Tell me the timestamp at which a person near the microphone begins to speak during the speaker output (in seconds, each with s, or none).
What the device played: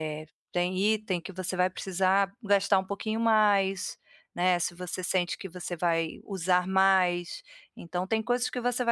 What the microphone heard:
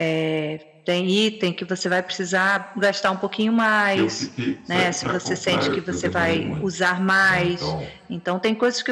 3.9 s